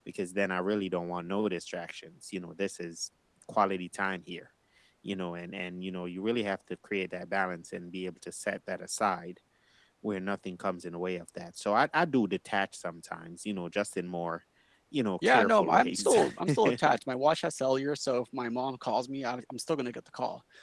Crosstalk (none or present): present